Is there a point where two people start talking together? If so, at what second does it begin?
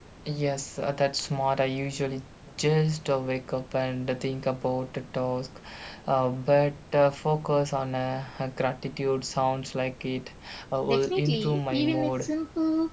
10.8 s

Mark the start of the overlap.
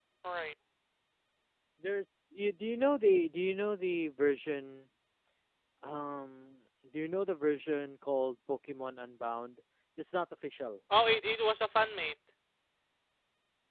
none

